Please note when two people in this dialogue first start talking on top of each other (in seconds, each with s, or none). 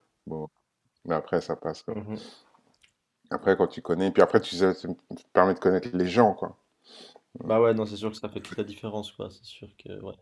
none